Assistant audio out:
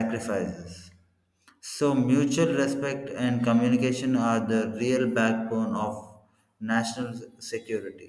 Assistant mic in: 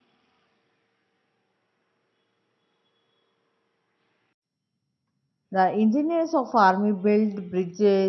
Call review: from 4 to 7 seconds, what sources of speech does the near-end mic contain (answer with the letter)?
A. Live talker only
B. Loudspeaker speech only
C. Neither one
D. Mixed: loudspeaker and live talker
A